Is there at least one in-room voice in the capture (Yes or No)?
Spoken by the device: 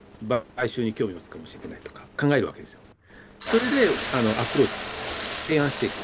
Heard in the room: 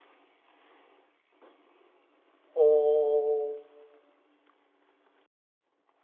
Yes